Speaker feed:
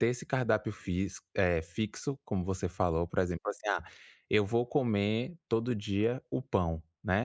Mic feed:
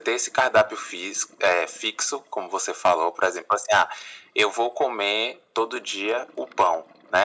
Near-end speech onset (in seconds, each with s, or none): none